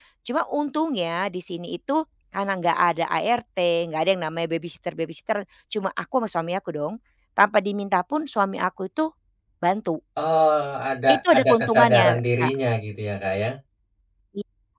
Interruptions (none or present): present